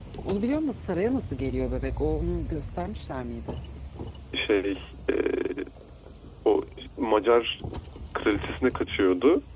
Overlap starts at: none

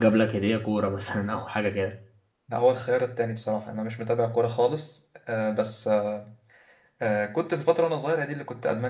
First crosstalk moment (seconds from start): none

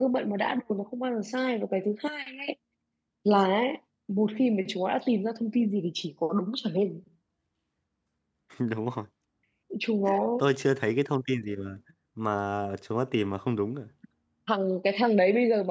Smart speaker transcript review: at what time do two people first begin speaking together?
none

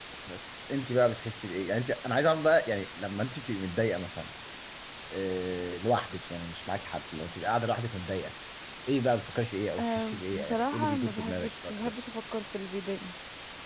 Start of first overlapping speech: 9.8 s

